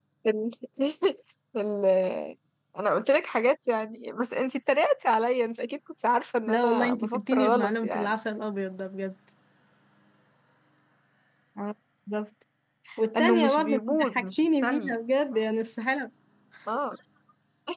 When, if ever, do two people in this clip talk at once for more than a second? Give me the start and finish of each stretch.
6.5-8.1, 13.2-15.0

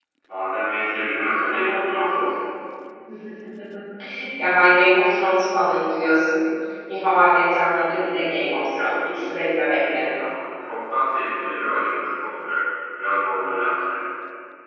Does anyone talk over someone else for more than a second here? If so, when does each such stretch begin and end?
none

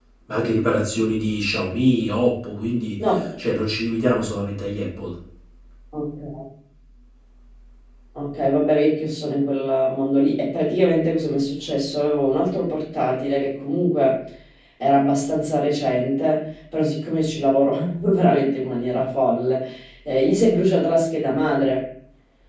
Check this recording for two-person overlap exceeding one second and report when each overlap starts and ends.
none

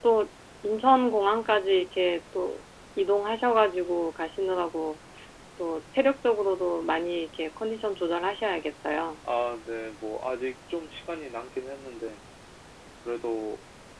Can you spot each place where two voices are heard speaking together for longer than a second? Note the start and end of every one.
none

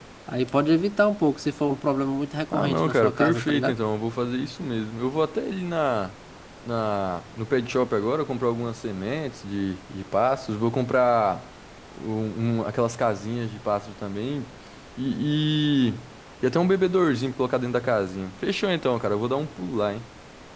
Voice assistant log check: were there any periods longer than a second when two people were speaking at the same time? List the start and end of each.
2.5-3.7

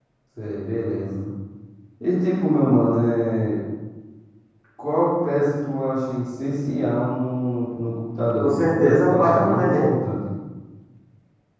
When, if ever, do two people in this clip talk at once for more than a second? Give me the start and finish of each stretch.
8.4-9.9

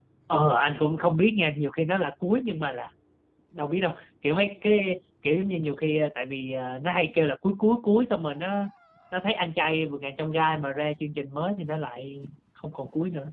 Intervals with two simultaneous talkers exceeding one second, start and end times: none

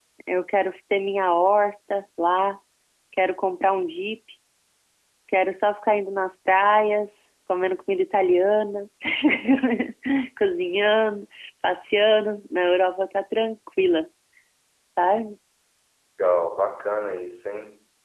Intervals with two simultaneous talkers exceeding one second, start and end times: none

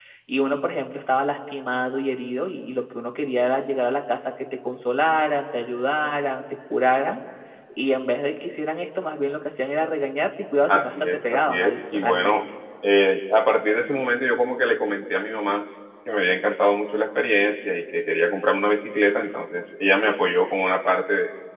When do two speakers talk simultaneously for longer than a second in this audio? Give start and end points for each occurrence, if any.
10.7-12.4

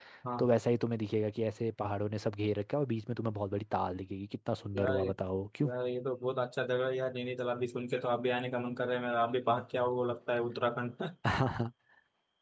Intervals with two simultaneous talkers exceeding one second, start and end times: none

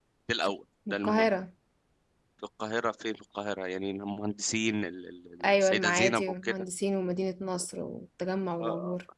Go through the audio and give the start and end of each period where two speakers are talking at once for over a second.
5.4-6.6

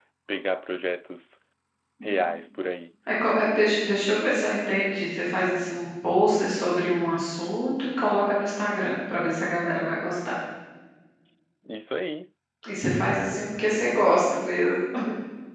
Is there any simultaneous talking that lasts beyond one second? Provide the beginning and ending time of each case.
none

